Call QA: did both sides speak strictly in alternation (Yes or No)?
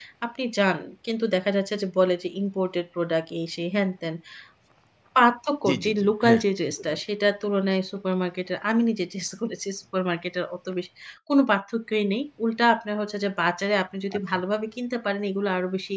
No